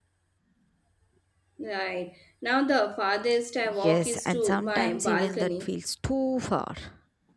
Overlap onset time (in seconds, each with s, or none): 3.6 s